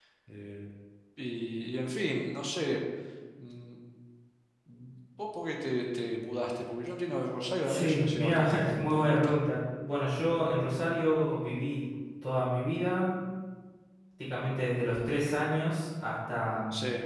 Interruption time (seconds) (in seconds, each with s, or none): 7.7 s